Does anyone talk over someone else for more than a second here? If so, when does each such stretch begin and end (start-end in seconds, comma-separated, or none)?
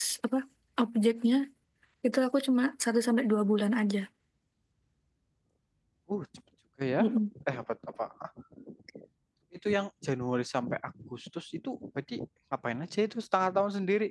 none